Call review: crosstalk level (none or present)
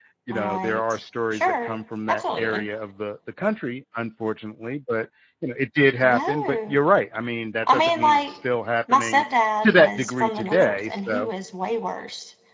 present